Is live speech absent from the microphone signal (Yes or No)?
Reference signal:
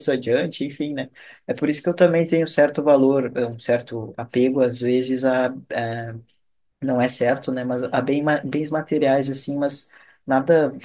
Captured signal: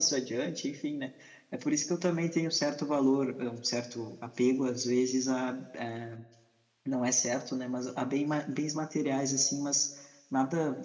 Yes